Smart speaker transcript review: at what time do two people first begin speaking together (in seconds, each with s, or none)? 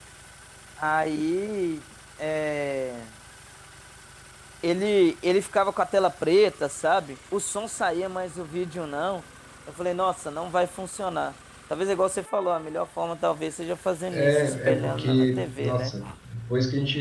14.1 s